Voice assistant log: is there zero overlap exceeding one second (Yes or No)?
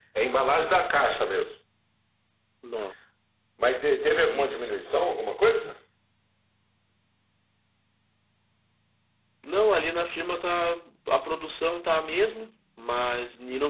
Yes